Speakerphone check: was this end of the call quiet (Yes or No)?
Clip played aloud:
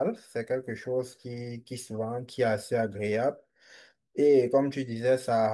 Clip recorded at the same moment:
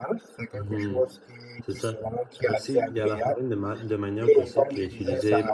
No